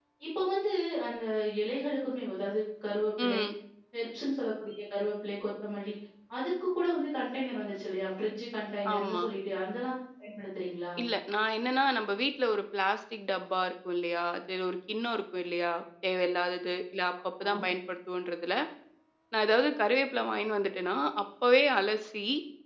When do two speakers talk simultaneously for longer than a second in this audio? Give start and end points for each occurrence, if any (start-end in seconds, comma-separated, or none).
none